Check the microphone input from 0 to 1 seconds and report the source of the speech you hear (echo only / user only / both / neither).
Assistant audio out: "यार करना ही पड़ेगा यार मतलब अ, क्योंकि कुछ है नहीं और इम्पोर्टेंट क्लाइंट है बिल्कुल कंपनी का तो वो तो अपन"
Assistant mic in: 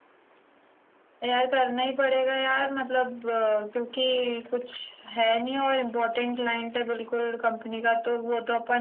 neither